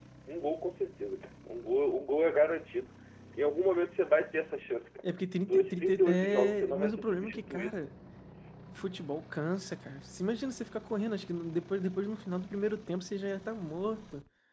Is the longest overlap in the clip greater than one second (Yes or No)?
Yes